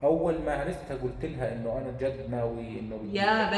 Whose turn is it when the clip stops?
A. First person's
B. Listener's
B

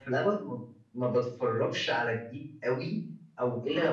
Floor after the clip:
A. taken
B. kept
B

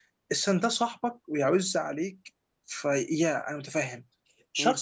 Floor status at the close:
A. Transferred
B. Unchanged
B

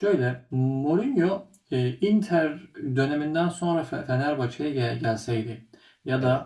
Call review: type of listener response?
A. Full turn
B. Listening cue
B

